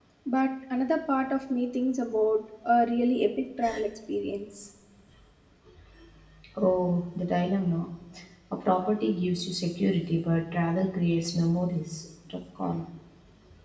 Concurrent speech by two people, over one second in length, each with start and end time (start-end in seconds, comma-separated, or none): none